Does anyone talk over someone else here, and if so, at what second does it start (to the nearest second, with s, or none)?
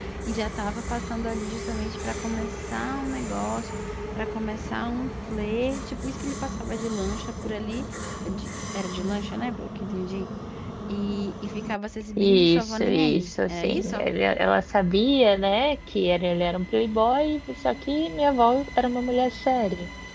12 s